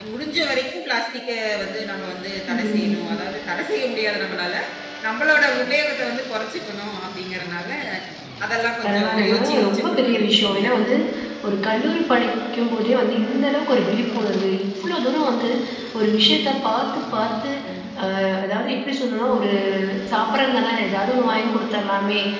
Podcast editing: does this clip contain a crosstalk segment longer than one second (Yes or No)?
Yes